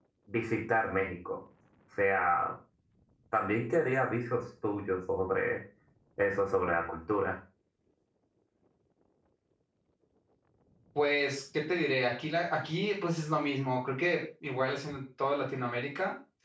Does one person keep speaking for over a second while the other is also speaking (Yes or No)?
No